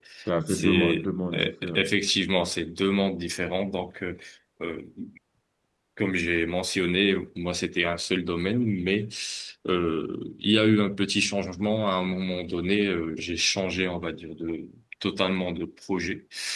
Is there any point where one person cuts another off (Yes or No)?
Yes